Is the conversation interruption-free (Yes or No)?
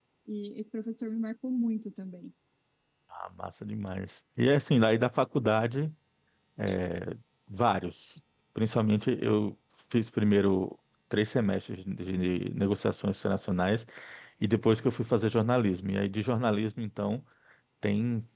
Yes